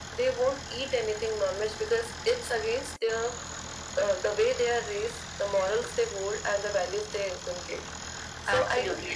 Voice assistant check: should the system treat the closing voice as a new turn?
Yes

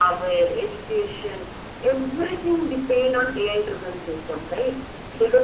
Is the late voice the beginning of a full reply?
Yes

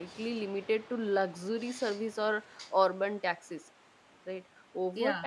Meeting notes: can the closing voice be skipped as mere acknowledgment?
Yes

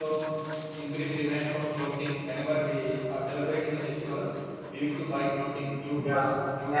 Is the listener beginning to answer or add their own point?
Yes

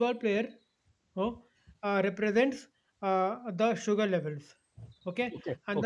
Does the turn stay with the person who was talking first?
Yes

